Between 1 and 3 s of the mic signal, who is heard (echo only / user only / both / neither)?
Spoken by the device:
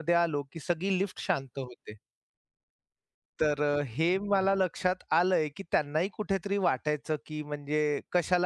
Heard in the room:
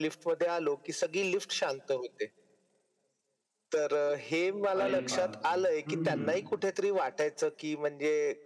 echo only